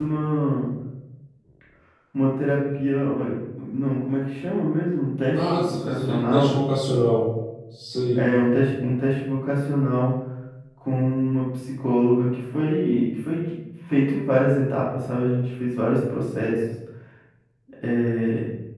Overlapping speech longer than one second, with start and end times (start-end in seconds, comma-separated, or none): 5.3-6.5